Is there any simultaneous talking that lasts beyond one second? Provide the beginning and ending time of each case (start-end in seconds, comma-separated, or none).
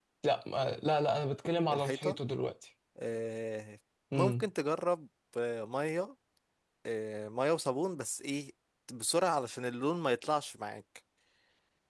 none